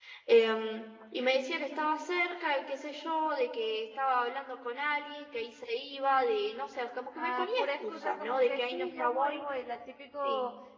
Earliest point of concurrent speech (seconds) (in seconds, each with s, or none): 7.2 s